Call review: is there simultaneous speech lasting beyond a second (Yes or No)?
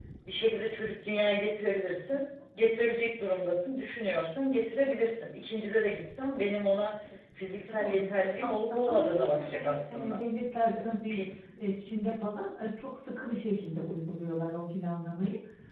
Yes